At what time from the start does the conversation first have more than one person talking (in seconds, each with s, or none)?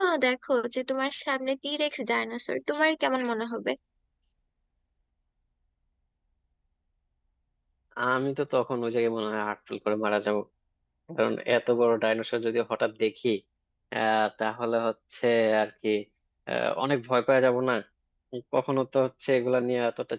none